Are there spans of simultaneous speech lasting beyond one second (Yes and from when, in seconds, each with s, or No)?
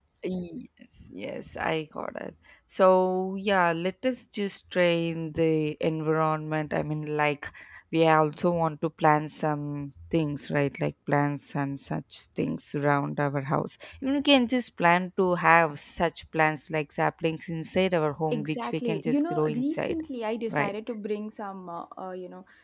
Yes, from 18.3 s